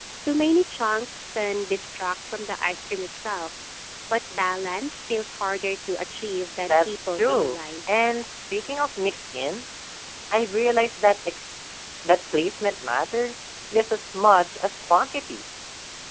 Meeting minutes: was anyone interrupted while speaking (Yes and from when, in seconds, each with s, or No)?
Yes, from 6.7 s